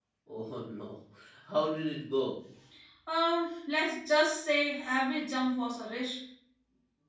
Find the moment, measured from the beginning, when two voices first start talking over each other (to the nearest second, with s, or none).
none